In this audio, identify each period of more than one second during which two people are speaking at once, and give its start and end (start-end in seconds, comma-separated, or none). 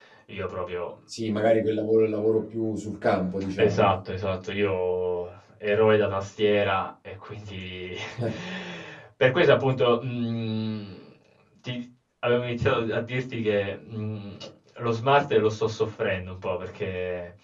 none